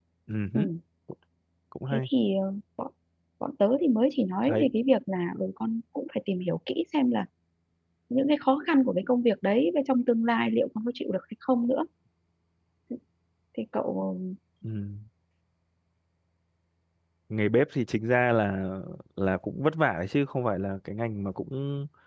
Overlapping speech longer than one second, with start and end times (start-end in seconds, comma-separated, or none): none